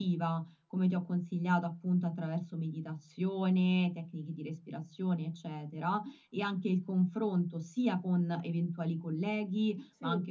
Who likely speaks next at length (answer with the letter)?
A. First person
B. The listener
A